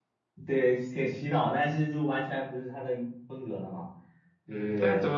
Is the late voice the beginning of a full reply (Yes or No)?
Yes